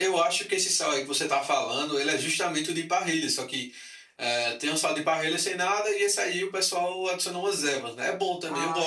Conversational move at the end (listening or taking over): taking over